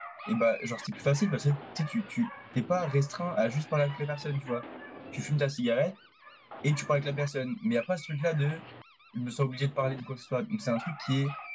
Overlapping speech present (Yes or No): No